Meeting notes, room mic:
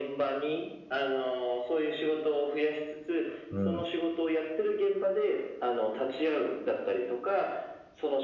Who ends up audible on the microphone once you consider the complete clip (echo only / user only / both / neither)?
both